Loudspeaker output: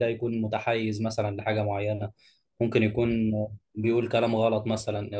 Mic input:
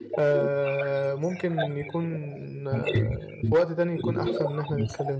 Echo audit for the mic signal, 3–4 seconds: both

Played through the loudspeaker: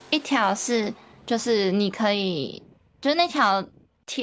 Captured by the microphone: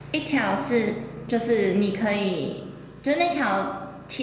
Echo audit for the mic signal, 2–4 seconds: echo only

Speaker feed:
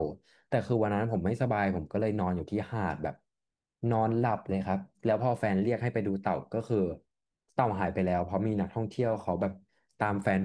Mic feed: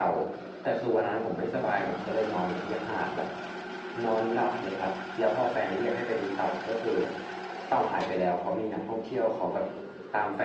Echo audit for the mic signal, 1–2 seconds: echo only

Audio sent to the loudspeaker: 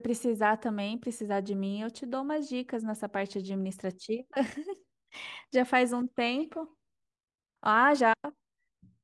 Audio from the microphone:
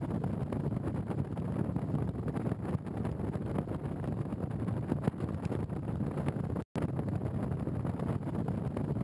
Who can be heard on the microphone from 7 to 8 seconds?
neither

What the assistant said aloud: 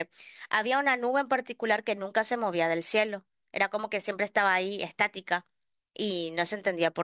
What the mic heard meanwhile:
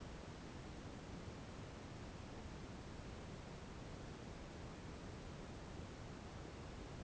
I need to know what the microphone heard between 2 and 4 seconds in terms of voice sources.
neither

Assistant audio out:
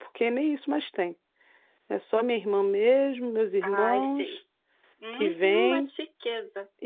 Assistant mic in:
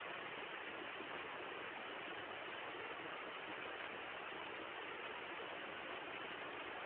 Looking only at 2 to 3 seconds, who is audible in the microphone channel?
neither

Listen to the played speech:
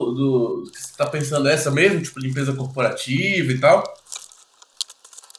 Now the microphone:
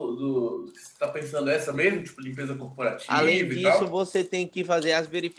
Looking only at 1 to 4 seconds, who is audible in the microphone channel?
both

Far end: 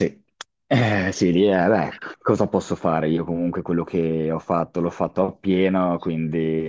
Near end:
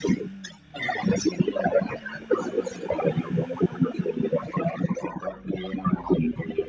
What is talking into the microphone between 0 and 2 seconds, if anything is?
echo only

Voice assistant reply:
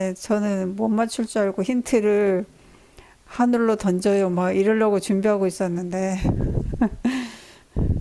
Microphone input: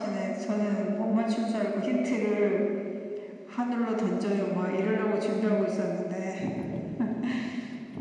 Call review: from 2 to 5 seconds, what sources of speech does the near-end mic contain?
echo only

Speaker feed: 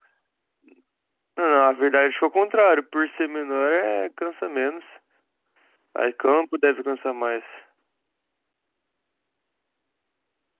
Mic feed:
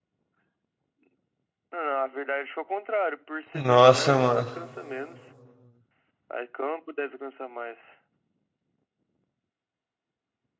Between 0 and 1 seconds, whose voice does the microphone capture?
neither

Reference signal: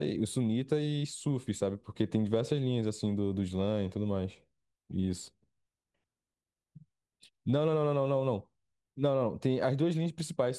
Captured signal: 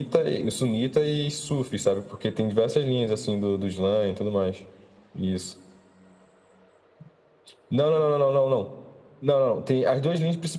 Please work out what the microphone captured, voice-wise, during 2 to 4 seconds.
echo only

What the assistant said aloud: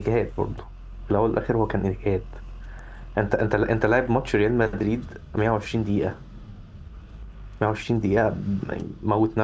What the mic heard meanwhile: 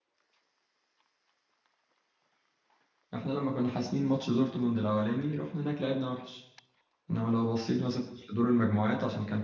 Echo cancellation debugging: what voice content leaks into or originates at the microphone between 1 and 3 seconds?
neither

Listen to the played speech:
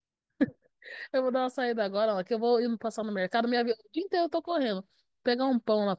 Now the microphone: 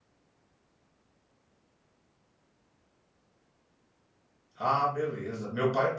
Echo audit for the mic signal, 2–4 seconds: neither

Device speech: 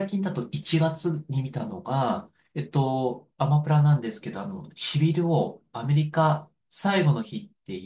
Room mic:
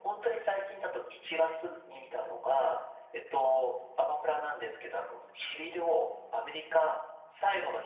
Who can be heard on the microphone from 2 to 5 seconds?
echo only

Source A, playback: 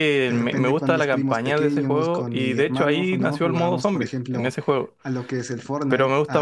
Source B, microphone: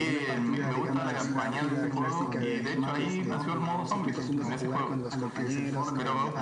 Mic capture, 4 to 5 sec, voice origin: both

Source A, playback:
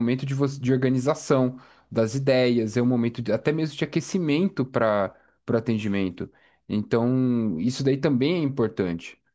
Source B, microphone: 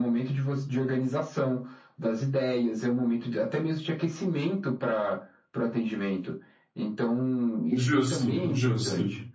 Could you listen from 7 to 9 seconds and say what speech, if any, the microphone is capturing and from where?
both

